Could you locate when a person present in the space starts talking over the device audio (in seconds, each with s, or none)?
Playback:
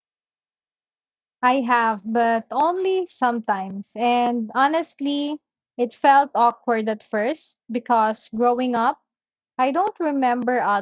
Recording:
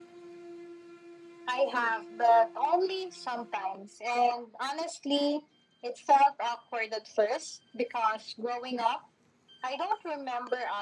none